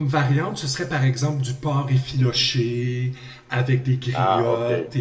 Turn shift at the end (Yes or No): No